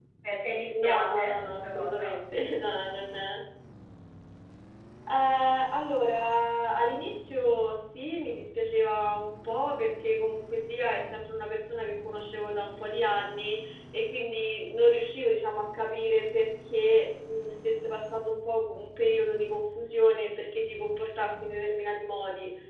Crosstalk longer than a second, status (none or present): present